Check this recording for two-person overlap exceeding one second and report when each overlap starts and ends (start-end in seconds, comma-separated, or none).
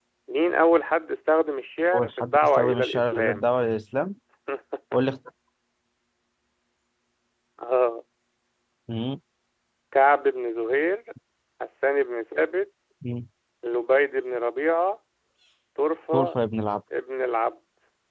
1.9-3.5